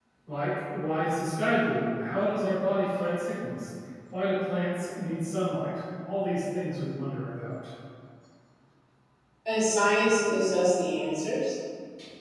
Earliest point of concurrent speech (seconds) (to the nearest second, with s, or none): none